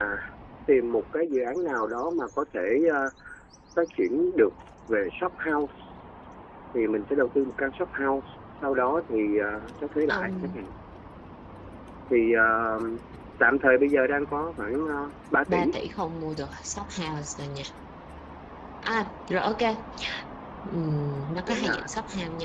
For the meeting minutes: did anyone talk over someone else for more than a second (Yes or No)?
No